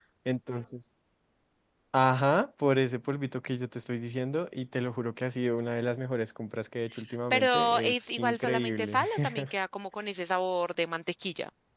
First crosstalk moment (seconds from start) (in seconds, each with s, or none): 7.3 s